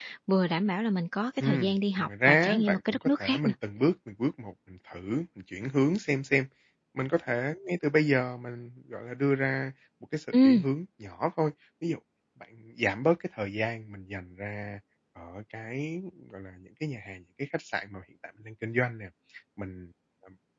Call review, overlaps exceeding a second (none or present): present